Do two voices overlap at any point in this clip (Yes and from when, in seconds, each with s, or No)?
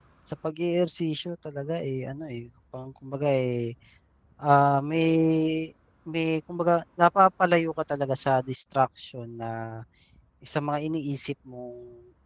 No